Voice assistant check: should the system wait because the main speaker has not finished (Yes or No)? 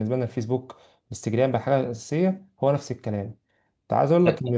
Yes